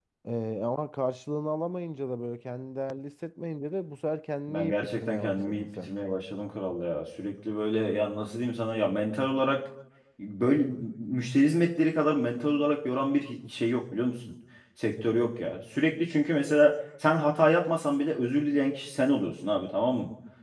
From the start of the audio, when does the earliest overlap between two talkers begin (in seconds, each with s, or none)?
4.5 s